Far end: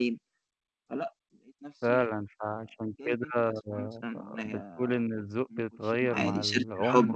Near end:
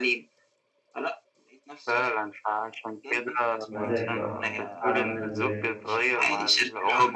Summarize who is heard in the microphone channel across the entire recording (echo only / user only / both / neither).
both